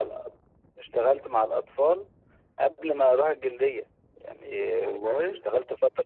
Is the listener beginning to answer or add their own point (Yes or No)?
No